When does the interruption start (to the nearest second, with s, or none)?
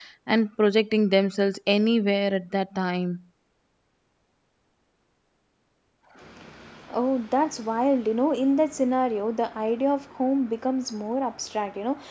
none